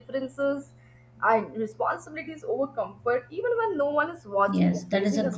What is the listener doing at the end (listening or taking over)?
taking over